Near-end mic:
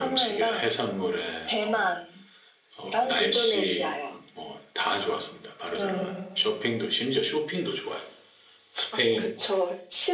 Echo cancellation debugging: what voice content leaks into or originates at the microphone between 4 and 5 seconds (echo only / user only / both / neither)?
echo only